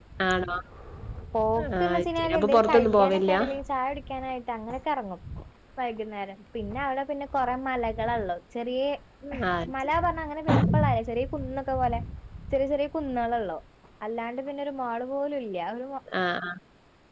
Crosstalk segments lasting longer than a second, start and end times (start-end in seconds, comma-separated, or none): 1.8-3.3